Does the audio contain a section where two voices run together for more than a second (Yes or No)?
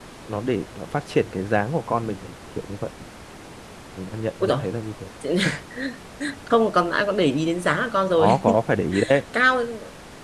No